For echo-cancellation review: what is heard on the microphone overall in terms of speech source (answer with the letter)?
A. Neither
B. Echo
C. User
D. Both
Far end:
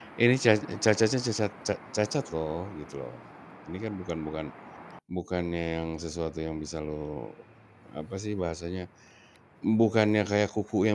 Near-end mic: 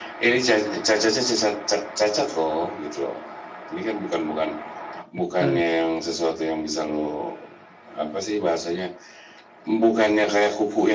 D